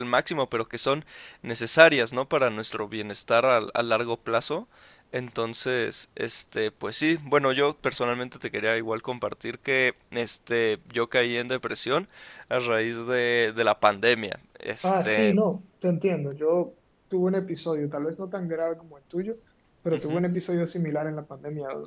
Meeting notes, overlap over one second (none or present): none